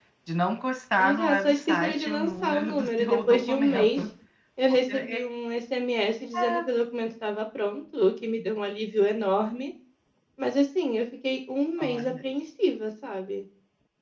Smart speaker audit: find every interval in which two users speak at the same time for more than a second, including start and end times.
1.0-4.0

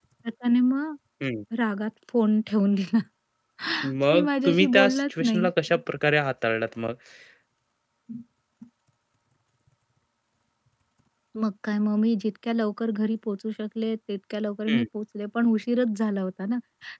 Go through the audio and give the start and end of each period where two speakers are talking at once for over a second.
4.1-5.5

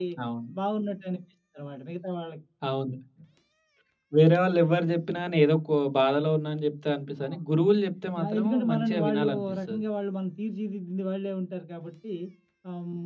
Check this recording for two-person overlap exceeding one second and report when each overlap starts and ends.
8.2-9.8

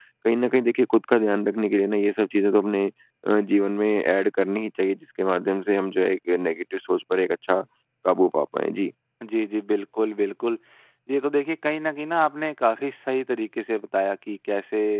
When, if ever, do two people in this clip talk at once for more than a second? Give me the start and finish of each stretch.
none

